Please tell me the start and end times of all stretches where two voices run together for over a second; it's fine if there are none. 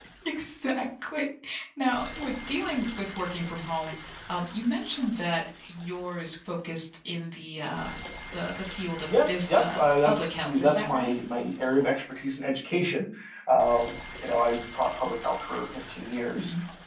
9.3-11.1

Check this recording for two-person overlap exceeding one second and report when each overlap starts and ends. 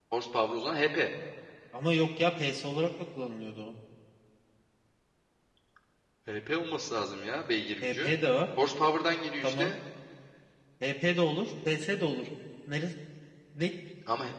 none

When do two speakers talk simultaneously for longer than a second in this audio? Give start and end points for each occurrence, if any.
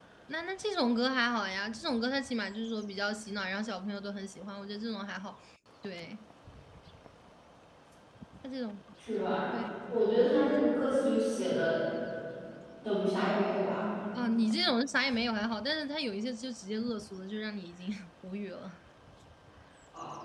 none

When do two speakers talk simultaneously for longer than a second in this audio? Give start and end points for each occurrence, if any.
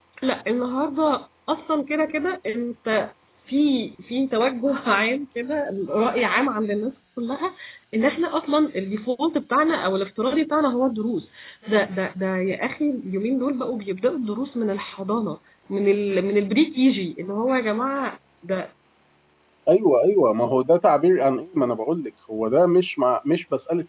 none

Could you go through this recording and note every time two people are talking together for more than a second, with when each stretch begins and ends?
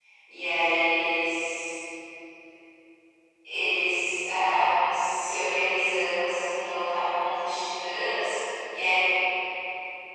none

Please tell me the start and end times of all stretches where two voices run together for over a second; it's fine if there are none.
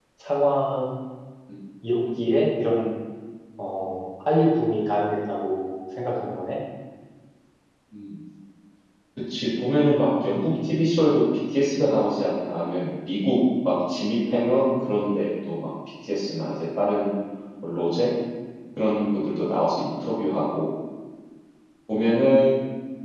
none

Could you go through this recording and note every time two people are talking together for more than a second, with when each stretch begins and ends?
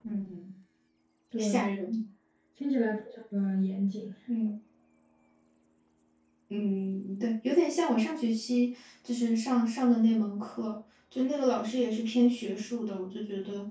none

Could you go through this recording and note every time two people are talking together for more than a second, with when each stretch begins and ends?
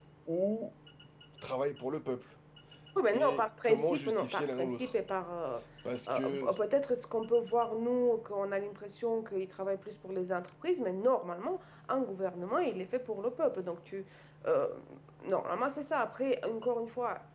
3.1-4.9

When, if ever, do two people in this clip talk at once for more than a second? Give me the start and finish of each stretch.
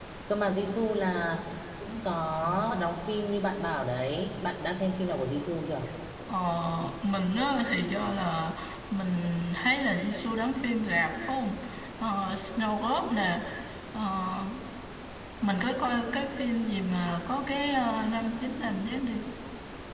none

